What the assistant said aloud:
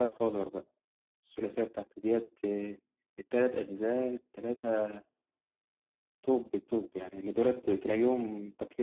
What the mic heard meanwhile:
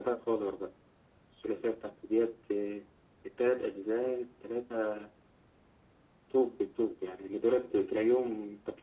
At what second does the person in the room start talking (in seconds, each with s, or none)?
none